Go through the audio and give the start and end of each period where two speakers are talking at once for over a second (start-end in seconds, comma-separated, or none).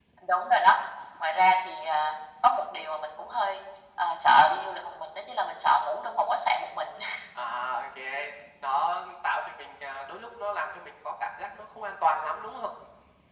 none